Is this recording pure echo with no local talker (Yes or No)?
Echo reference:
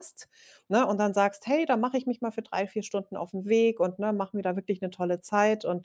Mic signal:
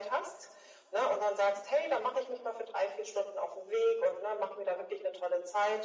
Yes